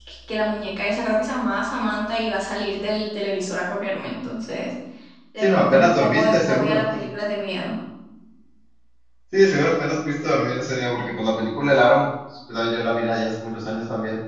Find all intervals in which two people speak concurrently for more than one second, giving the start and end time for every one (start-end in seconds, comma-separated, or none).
5.4-6.9